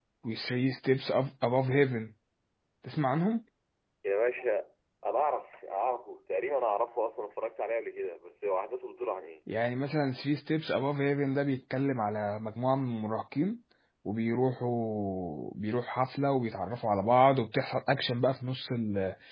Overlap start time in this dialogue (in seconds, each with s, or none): none